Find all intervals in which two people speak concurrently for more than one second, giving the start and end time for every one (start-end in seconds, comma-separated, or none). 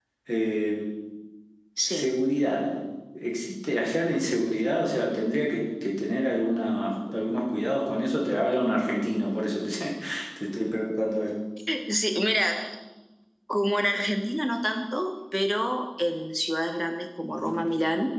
none